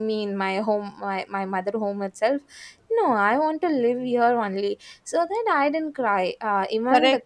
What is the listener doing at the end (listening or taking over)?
taking over